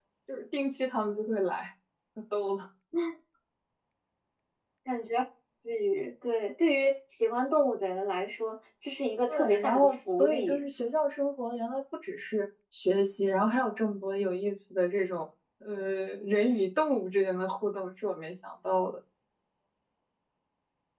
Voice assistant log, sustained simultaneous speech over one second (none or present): present